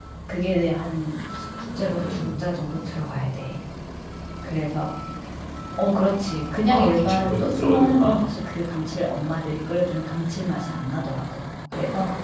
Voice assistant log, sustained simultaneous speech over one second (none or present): present